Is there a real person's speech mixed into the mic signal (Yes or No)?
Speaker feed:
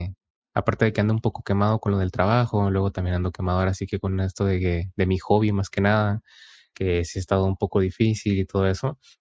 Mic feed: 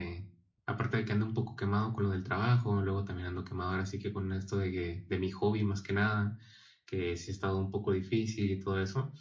No